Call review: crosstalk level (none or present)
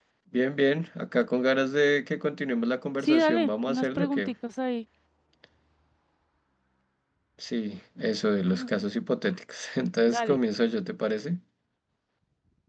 present